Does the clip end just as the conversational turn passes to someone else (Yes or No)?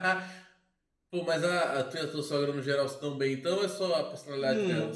Yes